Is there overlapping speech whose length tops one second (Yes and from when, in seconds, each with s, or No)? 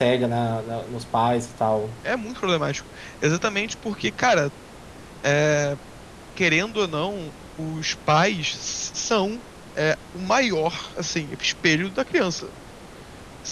No